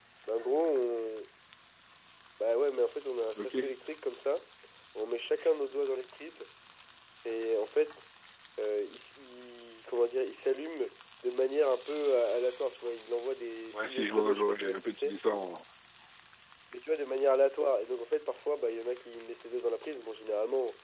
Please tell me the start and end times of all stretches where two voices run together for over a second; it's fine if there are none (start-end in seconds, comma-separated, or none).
13.7-15.1